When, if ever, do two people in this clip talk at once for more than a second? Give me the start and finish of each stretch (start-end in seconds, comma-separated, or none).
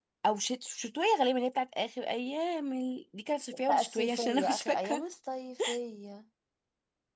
3.7-5.0